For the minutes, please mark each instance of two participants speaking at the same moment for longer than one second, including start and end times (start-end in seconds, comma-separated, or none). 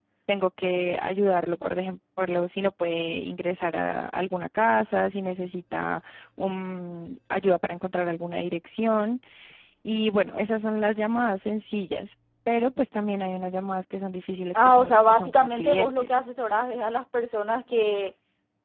14.5-16.2